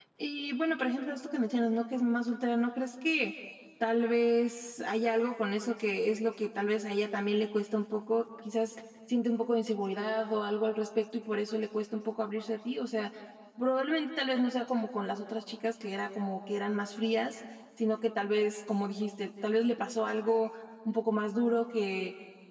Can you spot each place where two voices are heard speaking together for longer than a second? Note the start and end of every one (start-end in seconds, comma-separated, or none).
none